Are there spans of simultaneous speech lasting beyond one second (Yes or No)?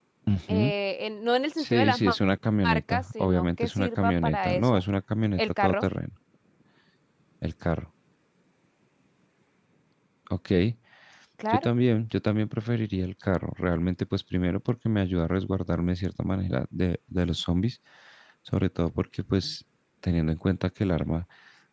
Yes